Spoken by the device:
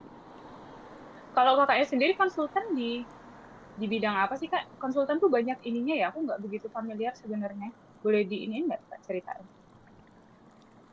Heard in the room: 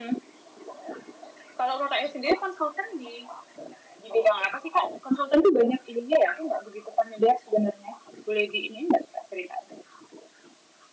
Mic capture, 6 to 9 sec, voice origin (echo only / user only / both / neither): echo only